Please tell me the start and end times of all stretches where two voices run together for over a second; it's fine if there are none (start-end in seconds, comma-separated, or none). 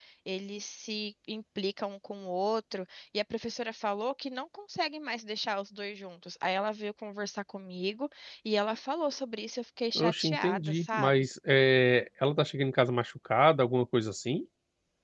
10.0-11.2